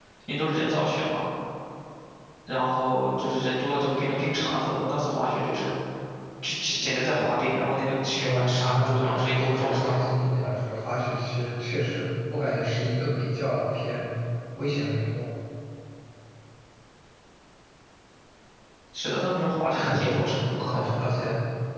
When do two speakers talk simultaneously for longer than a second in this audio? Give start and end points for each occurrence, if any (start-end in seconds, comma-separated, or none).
8.2-10.1